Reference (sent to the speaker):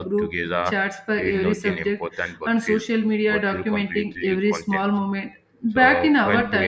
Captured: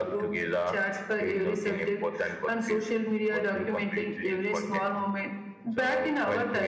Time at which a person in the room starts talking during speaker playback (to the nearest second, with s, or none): none